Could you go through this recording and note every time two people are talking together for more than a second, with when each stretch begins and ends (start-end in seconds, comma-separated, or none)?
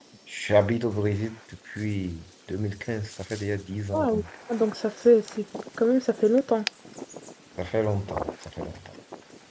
none